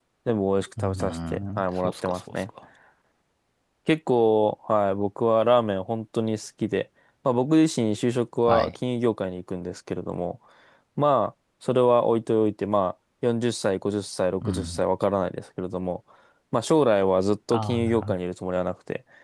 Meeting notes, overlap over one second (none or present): present